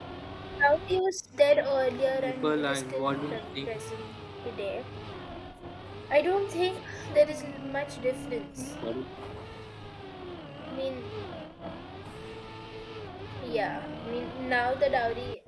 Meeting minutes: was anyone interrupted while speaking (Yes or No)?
Yes